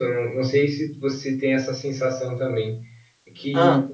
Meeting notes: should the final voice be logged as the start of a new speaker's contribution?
No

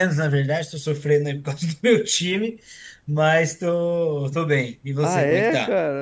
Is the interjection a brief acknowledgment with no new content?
No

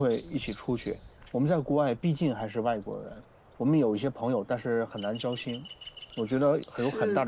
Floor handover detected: Yes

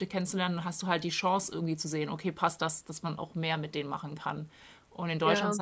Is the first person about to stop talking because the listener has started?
No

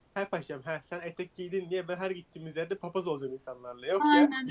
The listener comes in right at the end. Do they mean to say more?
Yes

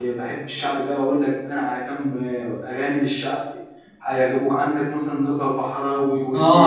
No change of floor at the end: No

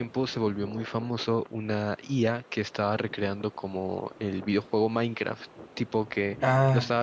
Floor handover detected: No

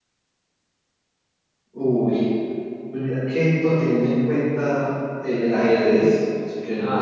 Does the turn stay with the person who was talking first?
Yes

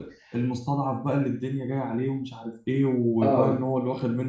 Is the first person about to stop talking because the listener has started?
No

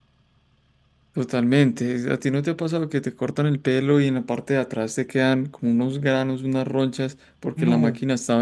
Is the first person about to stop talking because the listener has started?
No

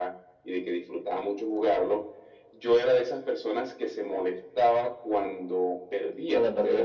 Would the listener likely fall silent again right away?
Yes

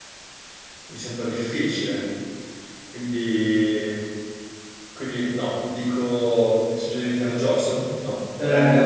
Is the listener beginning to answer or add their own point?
Yes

